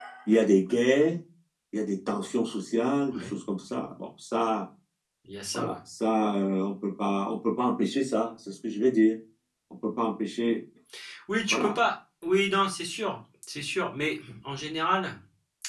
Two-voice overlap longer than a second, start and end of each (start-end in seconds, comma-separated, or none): none